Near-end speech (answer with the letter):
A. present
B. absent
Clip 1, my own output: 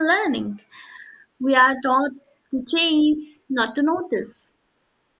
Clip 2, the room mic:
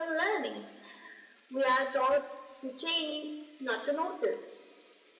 B